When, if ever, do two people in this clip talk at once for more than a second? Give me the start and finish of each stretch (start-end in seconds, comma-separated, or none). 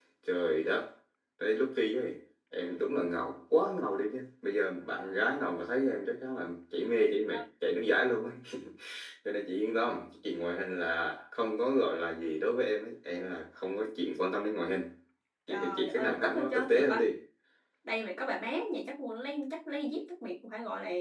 15.5-17.1